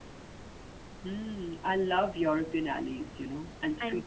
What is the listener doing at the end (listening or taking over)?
listening